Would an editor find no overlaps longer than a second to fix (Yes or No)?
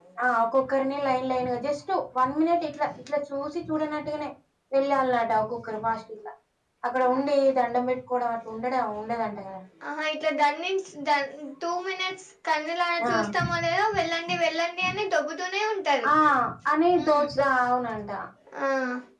Yes